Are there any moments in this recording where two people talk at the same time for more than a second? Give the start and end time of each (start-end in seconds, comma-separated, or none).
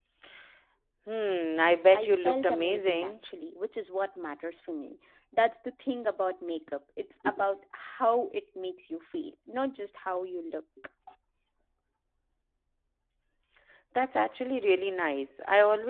1.9-3.1